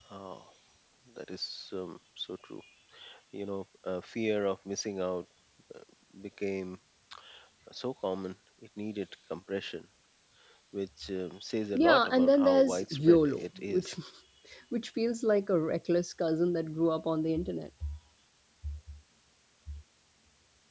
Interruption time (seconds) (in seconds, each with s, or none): 11.7 s